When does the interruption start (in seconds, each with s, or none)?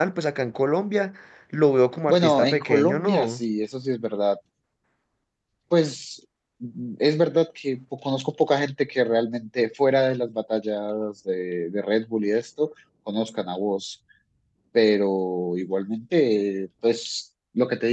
2.1 s